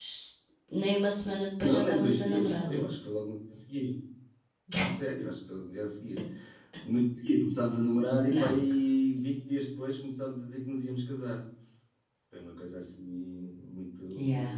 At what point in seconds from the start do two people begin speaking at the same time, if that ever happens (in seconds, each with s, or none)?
1.6 s